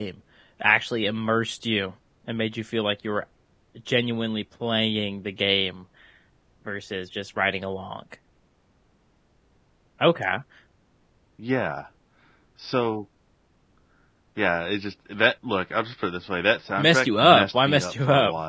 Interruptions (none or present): present